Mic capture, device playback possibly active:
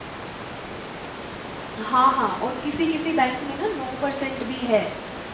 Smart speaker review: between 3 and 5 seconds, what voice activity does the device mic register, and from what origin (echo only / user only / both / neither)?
user only